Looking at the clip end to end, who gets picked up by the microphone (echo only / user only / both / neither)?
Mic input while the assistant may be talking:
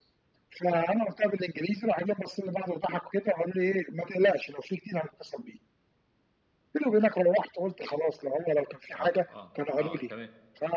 both